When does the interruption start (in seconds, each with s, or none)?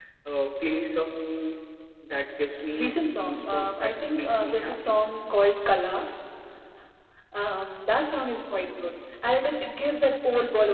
2.7 s